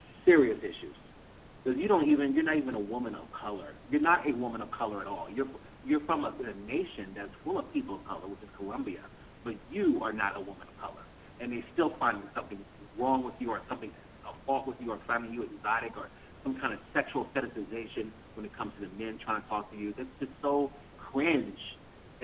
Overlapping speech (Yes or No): No